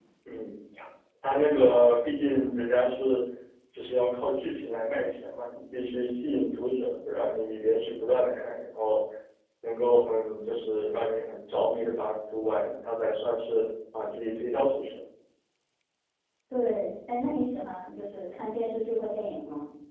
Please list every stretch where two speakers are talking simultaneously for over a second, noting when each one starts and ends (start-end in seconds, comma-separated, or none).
none